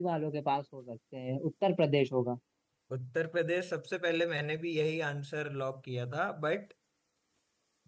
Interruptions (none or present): none